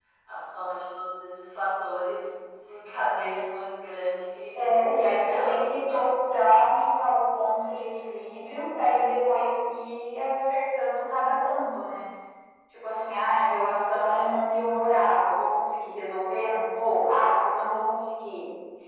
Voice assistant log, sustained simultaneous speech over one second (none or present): present